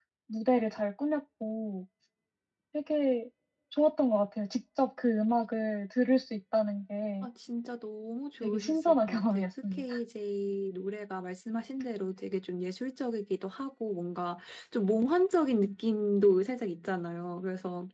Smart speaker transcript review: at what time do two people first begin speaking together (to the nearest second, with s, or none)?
8 s